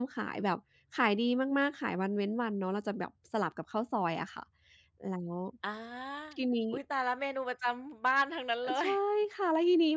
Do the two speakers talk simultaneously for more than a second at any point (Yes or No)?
No